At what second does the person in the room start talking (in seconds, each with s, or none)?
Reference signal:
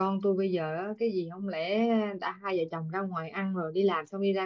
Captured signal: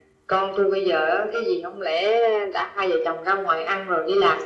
none